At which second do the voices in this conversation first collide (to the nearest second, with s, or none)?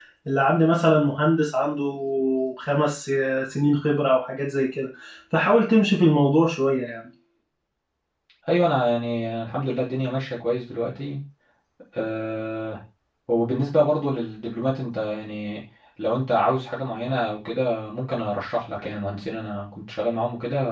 none